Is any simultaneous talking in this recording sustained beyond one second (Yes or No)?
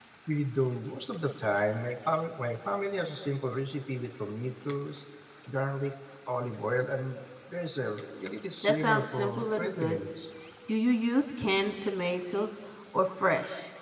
Yes